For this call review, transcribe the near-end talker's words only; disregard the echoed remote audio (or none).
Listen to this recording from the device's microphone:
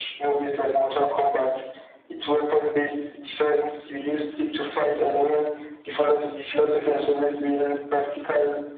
none